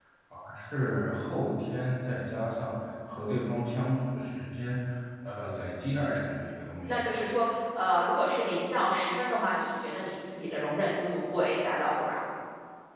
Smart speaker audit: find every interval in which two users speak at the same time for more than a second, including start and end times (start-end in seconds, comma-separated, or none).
none